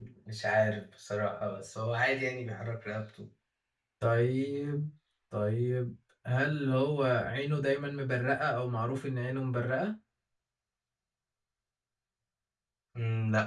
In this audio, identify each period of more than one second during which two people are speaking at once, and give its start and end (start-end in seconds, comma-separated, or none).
none